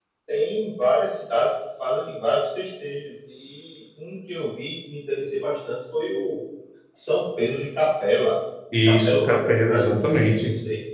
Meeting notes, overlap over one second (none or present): present